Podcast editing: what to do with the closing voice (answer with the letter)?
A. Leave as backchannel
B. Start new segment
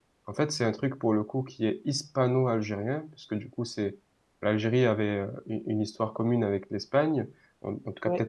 A